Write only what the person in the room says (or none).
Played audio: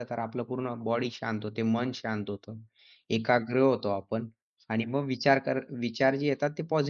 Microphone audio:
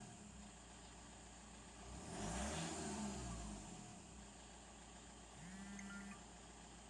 none